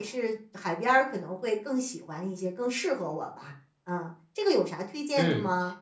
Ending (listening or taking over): taking over